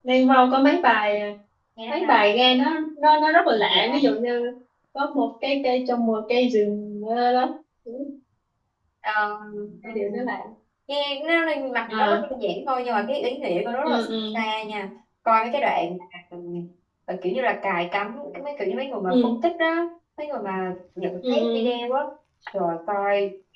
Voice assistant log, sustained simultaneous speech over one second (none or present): none